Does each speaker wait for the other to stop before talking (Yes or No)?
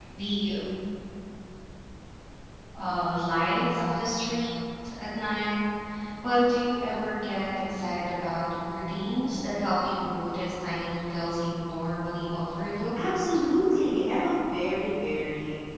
Yes